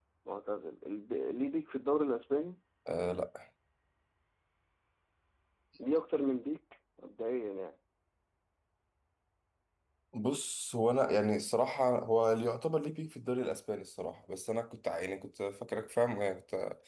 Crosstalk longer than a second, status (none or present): none